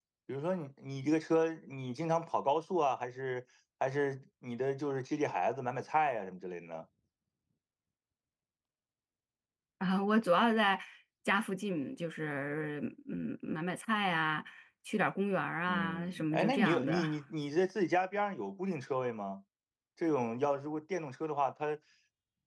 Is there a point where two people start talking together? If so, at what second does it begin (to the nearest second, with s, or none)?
16 s